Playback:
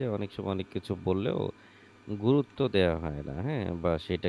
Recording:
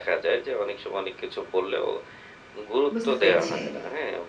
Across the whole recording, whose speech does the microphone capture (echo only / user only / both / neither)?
both